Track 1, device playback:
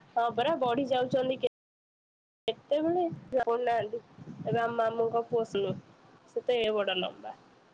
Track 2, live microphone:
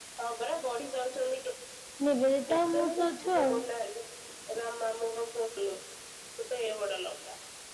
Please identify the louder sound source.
user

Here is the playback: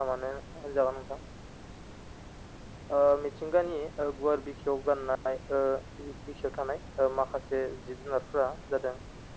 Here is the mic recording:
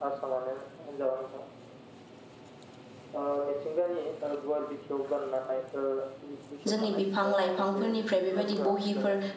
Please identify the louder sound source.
user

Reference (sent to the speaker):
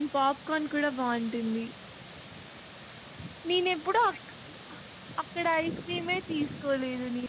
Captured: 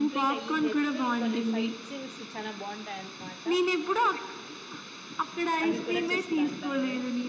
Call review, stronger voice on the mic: echo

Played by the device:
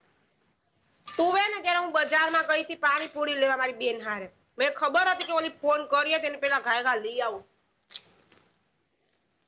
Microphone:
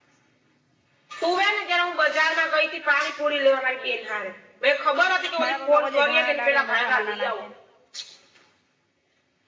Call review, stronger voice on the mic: echo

